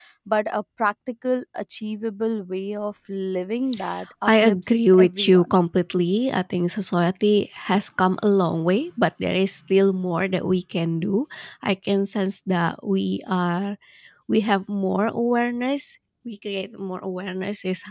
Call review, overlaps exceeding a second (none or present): present